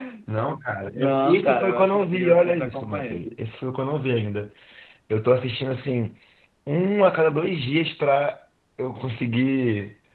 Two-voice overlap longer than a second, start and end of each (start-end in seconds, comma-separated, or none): 0.9-3.4